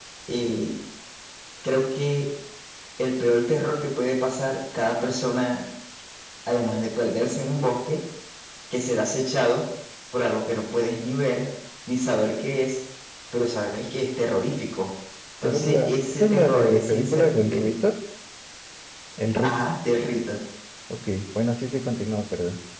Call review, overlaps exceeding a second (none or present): present